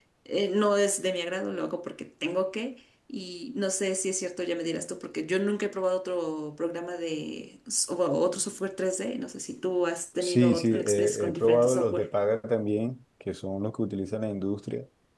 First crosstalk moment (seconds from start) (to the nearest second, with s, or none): 10 s